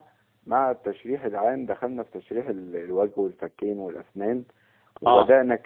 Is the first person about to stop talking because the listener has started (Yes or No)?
No